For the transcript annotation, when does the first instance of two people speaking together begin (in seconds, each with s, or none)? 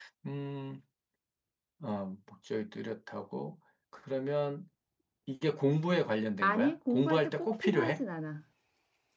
6.4 s